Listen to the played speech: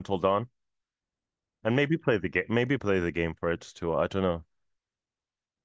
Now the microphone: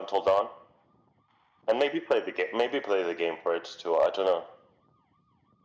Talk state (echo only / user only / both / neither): echo only